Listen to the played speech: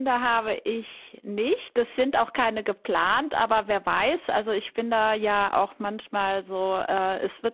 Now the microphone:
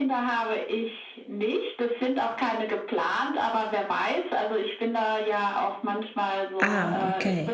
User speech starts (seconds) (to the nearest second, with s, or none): 7 s